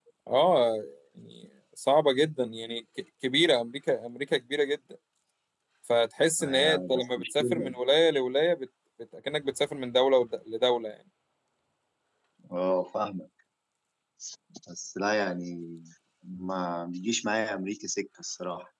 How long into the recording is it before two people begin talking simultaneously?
6.4 s

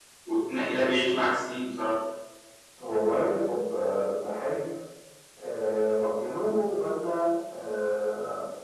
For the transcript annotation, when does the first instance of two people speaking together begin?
none

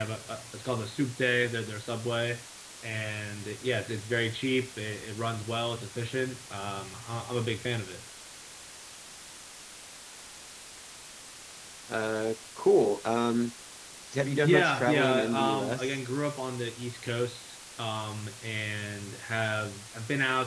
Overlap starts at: 14.4 s

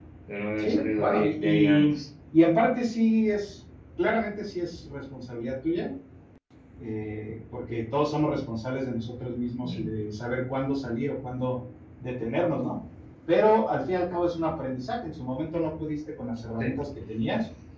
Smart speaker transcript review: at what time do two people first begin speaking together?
0.6 s

